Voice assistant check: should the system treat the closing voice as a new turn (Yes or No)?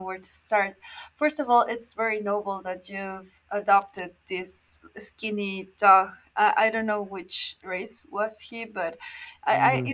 No